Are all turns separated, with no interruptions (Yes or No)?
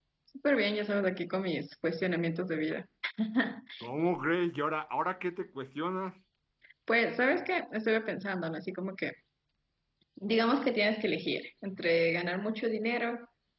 Yes